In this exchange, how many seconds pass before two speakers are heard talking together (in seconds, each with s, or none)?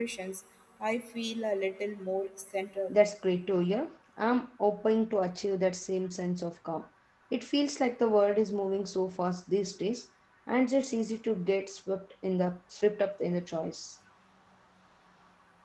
none